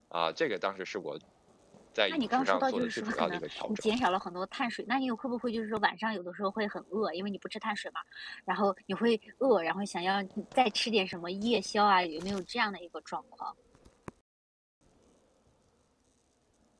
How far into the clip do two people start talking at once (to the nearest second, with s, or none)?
2 s